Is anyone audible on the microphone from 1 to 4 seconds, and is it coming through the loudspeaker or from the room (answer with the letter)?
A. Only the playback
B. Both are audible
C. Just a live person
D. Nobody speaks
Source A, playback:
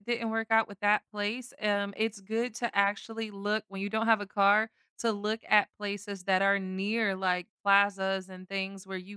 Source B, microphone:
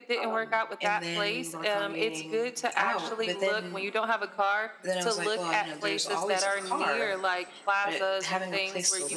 B